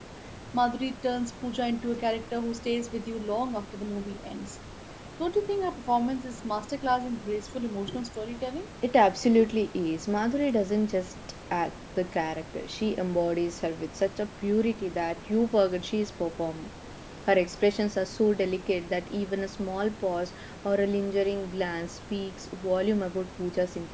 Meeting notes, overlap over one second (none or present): none